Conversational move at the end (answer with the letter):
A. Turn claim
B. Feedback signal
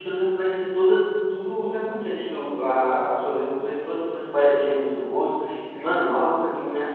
B